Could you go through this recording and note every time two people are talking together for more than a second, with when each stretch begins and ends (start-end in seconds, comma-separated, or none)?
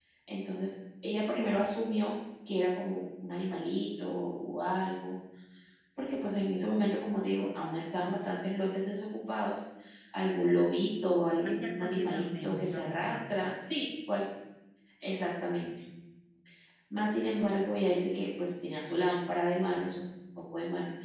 11.4-13.2